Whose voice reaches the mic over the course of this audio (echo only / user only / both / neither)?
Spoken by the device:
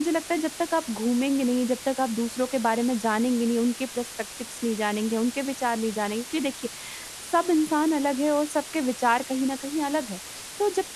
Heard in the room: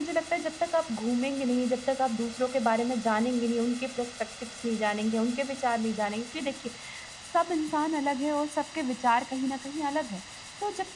echo only